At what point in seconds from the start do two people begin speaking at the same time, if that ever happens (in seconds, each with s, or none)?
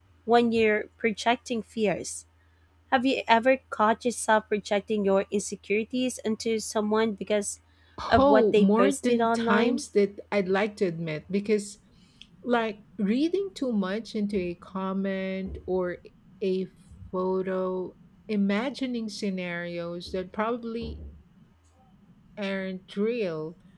8.2 s